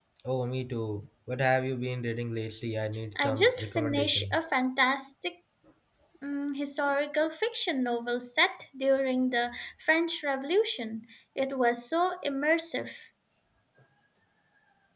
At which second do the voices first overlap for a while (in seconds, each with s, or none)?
3.2 s